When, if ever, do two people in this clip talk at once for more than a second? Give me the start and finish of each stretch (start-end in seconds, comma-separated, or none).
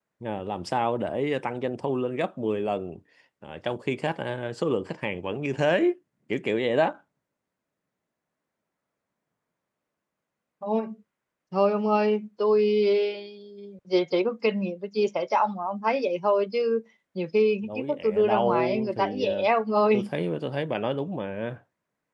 17.6-19.5